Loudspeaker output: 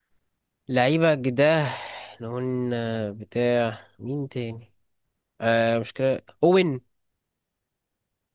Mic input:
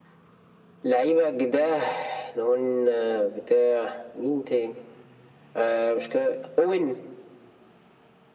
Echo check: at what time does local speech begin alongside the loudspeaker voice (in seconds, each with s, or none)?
none